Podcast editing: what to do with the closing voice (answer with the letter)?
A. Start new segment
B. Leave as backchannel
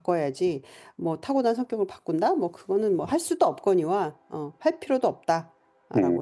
A